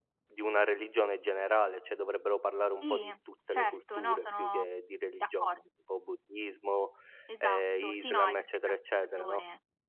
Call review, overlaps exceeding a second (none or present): present